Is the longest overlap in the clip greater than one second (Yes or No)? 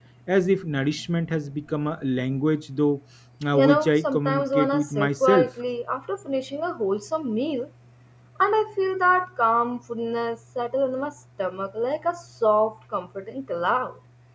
Yes